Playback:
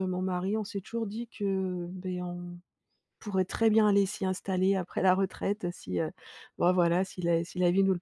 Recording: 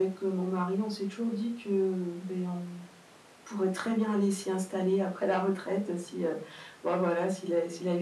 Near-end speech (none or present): none